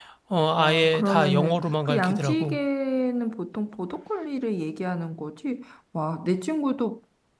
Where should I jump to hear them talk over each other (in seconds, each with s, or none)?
0.6 s